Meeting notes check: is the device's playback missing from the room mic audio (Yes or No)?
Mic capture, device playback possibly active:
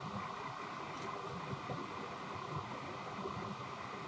Yes